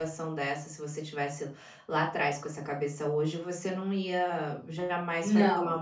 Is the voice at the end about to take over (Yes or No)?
No